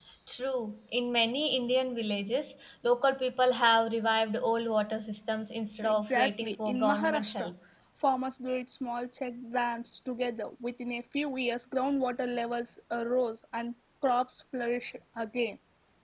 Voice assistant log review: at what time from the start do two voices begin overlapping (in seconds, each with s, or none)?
5.8 s